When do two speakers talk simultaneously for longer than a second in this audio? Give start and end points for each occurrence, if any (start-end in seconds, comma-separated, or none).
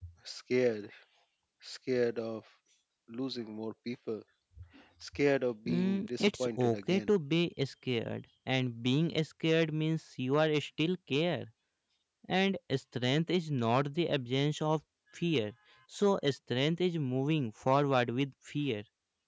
5.7-7.1